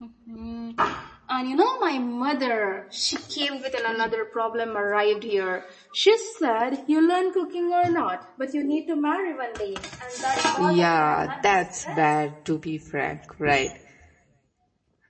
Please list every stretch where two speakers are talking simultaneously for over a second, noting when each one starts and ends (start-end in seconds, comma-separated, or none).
10.6-12.2